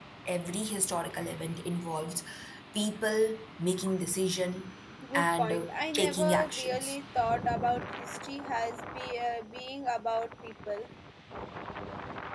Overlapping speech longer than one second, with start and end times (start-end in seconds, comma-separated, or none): 5.1-7.0